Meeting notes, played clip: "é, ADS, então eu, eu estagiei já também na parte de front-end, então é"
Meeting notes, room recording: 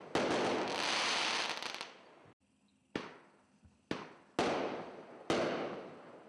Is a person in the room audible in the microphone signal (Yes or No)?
No